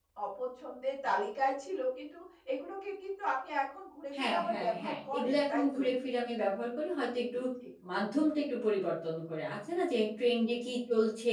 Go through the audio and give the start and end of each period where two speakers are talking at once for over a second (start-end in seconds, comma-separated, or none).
4.2-5.8